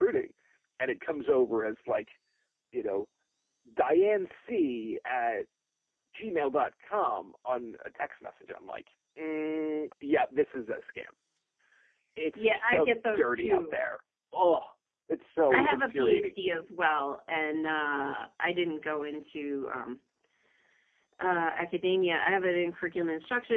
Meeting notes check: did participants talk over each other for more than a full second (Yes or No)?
Yes